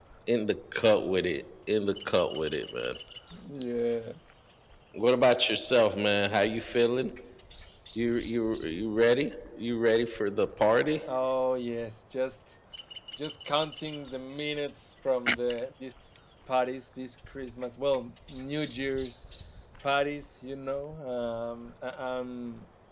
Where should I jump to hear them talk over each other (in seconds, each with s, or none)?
none